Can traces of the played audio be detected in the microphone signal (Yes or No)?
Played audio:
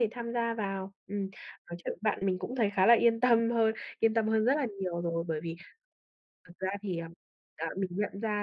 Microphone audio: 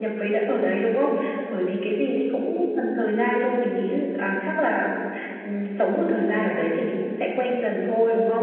No